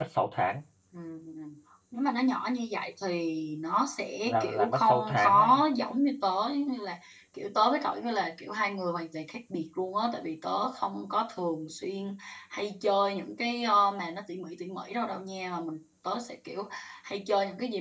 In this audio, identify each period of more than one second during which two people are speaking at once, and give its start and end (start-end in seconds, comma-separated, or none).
4.2-5.6